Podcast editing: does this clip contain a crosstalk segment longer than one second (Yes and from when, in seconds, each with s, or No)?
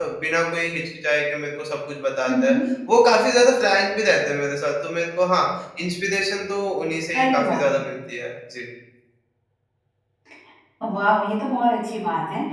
No